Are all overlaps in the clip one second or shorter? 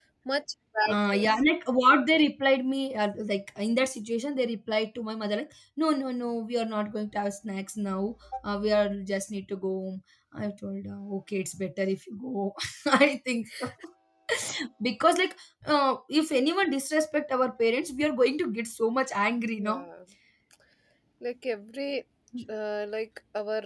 Yes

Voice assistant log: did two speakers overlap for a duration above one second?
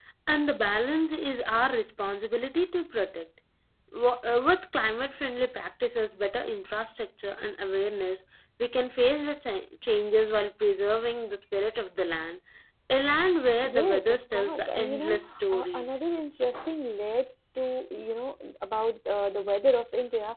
Yes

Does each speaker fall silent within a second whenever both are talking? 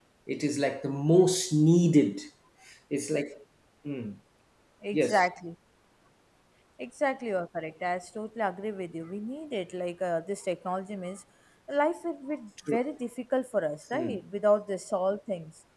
Yes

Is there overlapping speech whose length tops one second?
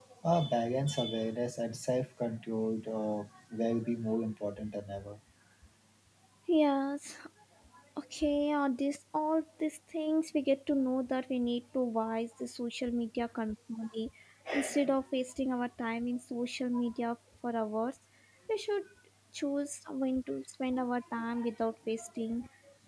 No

